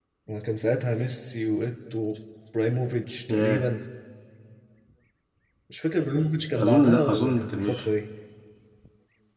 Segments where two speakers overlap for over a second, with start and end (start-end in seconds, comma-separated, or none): 6.6-7.9